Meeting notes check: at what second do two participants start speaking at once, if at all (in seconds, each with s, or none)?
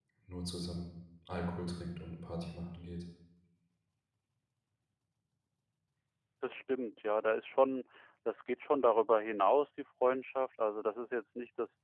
none